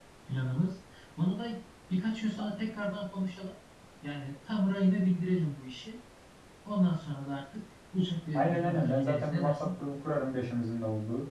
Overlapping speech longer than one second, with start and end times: 8.3-9.7

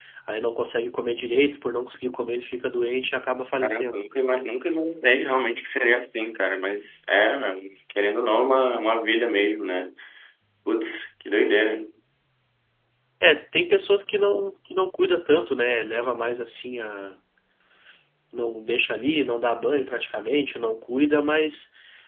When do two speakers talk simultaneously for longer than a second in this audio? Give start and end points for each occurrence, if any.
none

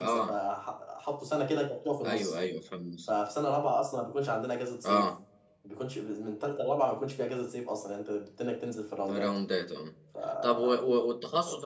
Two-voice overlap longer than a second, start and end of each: none

